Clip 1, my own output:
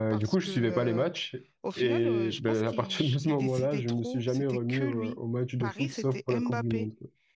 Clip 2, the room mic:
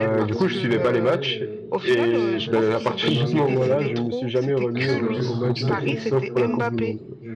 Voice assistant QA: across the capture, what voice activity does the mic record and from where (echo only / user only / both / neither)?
both